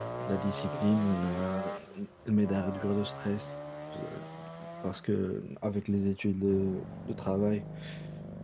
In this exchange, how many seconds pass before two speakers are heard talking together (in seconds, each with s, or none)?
none